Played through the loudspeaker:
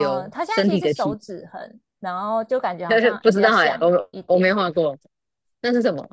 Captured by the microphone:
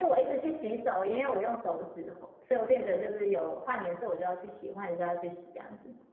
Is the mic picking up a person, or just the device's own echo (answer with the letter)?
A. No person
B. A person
B